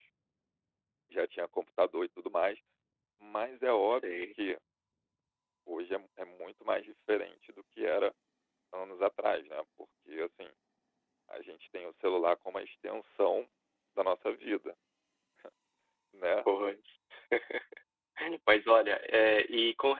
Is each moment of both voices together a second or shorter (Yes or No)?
Yes